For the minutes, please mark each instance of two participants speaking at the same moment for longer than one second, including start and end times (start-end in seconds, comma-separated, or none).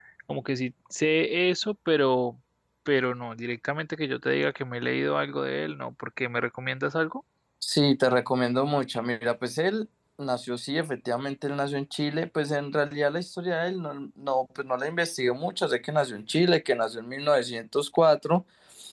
none